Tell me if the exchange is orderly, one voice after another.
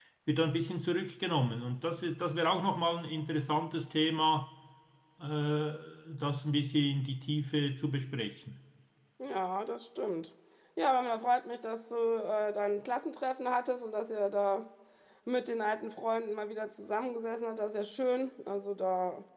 Yes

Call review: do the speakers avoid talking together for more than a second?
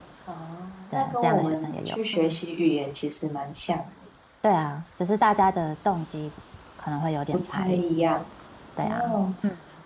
No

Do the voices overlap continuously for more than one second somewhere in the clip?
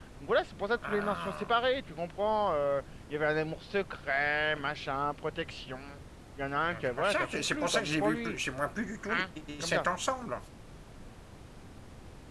Yes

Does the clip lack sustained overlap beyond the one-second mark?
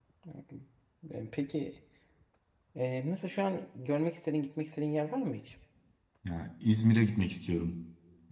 Yes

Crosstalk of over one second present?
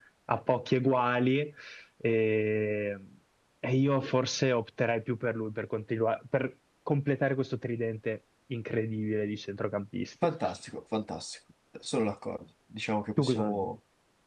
No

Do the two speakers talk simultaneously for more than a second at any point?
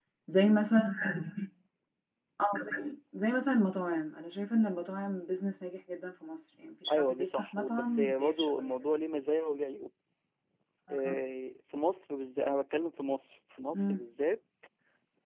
Yes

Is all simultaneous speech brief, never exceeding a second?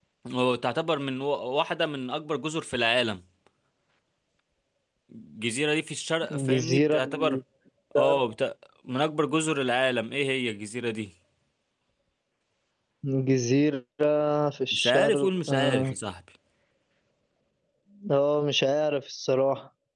No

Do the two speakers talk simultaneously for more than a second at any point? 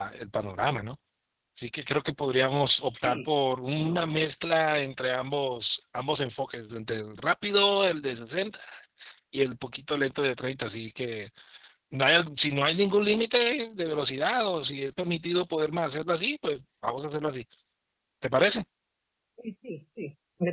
No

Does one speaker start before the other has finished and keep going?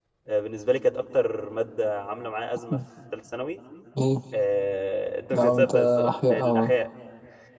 Yes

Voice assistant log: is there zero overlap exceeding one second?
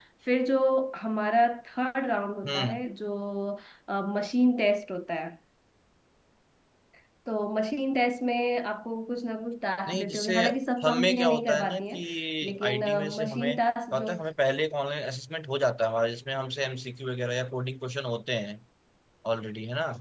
No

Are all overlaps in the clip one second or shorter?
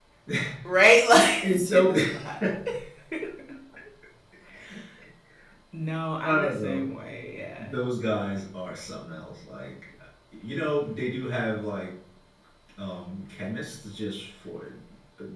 No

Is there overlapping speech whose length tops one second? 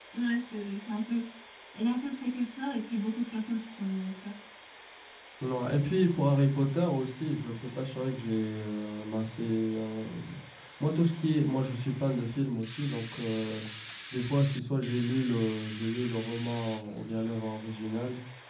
No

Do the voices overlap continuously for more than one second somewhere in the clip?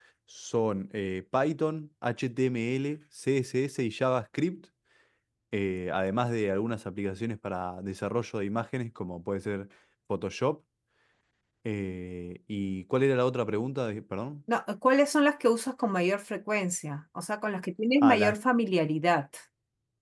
No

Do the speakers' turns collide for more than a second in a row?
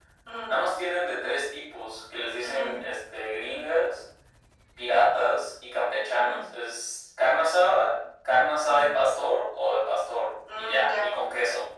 No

